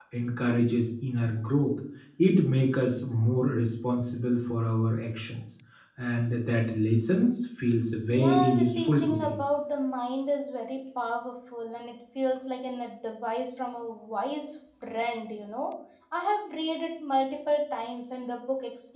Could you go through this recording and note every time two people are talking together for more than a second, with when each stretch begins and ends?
8.1-9.3

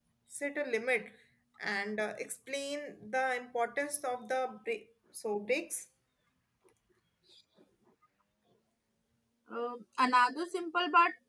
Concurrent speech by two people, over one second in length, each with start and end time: none

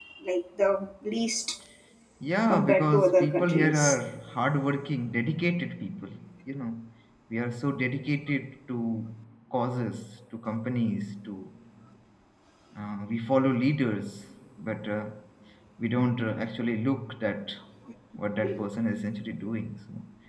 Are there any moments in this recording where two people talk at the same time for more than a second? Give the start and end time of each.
2.5-4.0

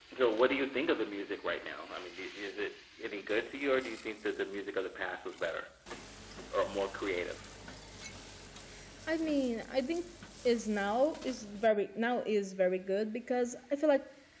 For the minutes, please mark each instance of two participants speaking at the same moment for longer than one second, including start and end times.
none

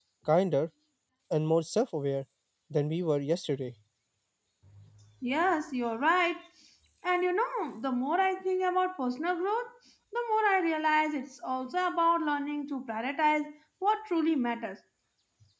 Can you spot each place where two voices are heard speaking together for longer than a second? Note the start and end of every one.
none

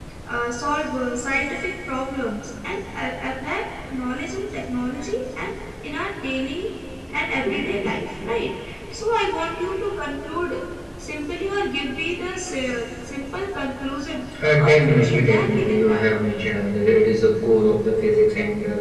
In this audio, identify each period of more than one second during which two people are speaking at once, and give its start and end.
14.6-16.2

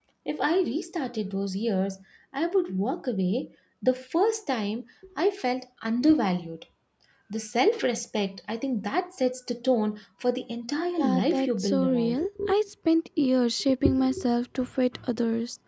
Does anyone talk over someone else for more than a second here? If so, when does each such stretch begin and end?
11.0-12.2

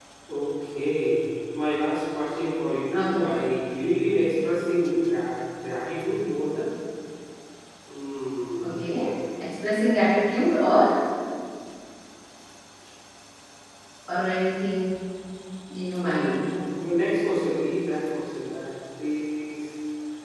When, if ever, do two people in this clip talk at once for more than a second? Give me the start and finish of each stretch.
none

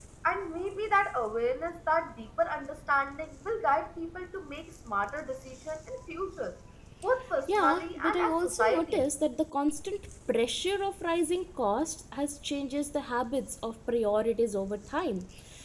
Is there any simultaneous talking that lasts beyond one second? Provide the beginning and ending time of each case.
7.5-9.1

